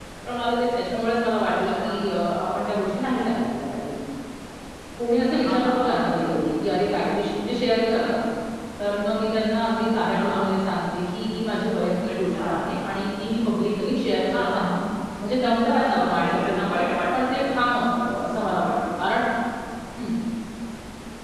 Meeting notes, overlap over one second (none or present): present